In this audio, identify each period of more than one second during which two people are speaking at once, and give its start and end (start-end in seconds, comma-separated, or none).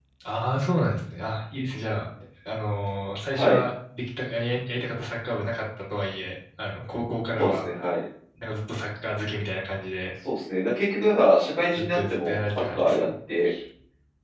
11.8-13.1